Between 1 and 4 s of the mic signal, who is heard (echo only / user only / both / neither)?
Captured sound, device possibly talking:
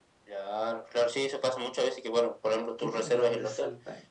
both